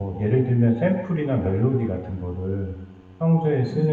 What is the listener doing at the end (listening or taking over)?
listening